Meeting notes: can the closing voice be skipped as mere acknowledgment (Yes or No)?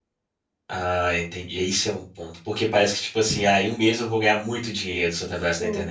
No